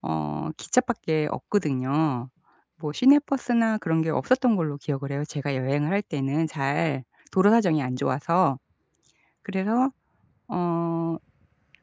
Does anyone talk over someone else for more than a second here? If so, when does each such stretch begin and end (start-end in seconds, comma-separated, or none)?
none